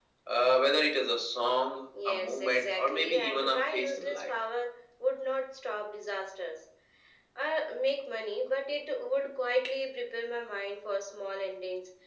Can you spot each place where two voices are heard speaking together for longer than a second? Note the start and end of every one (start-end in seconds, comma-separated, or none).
2.0-4.4